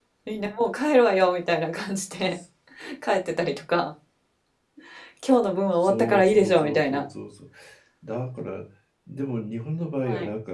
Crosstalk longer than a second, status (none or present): present